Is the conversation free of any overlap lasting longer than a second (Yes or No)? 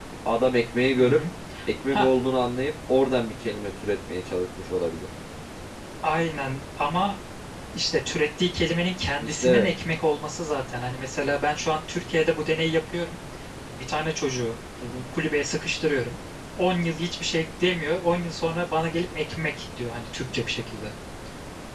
Yes